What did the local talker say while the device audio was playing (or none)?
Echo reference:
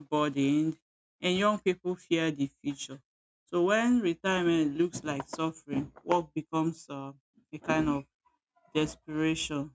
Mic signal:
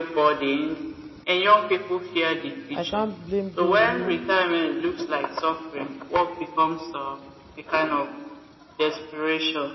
I can't blame those who,